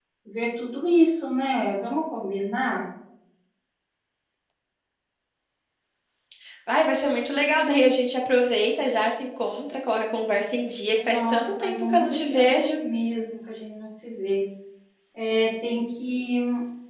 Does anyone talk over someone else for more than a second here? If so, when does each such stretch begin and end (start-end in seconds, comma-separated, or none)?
10.9-12.8